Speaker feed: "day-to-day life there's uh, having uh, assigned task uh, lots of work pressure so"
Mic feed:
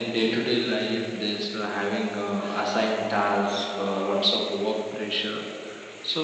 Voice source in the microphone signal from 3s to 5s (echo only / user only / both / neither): echo only